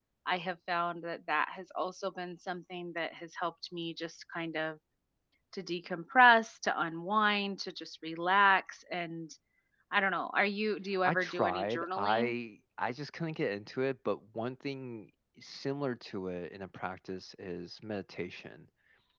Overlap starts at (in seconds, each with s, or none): 11.1 s